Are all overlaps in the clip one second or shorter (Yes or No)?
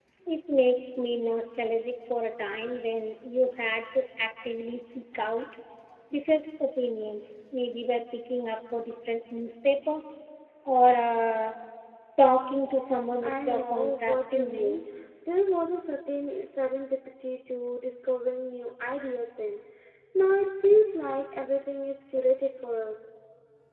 No